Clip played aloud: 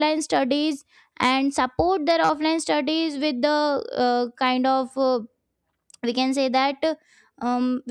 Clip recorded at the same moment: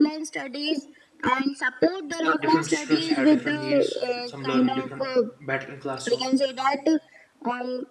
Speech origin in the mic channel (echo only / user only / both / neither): both